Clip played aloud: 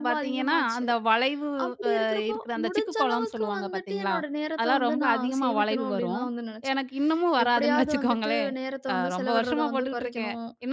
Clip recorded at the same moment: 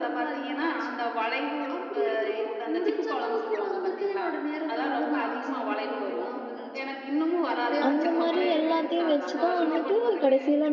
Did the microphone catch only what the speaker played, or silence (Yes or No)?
No